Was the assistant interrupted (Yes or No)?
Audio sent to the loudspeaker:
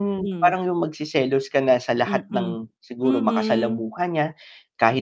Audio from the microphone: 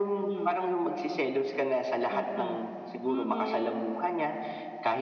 No